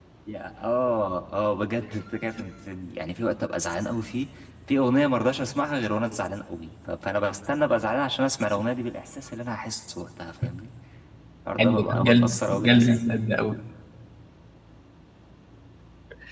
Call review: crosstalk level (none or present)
present